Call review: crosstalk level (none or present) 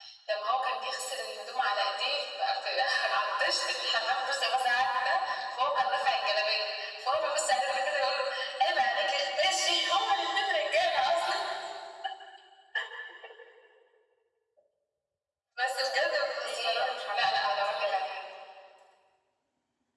present